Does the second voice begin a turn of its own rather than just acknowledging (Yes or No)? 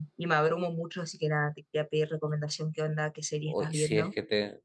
Yes